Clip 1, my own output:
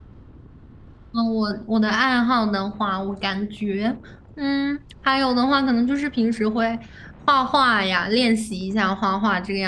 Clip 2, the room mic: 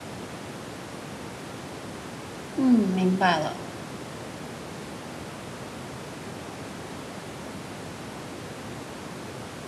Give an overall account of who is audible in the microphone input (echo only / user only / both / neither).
user only